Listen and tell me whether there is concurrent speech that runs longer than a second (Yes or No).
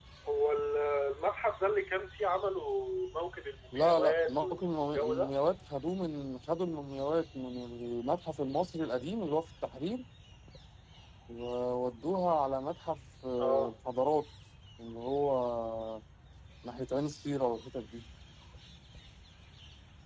Yes